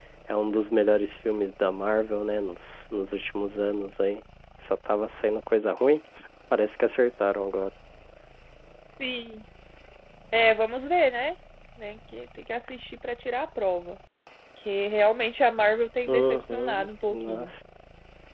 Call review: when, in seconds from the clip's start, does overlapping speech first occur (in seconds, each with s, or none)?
16.1 s